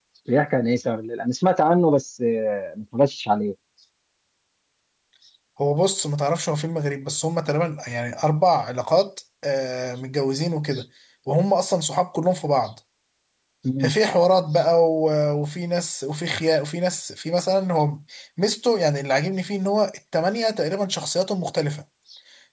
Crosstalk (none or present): none